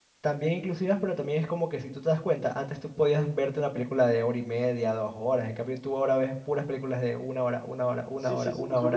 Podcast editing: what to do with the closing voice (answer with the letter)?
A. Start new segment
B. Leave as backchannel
A